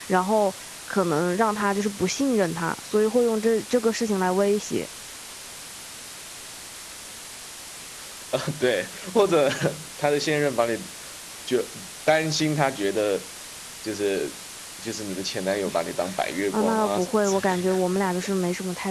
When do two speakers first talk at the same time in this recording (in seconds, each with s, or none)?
16.5 s